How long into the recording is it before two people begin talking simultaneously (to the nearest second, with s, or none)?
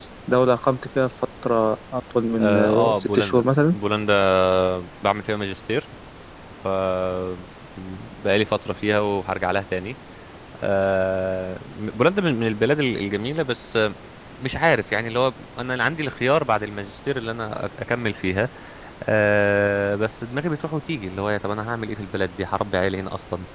2 s